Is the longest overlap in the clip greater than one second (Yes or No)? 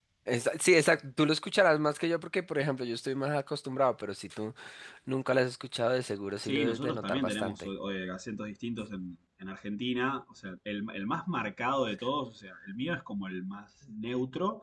Yes